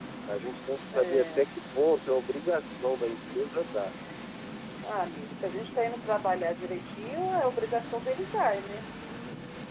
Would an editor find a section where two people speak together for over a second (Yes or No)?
No